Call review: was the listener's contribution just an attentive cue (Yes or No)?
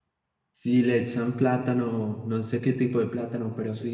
No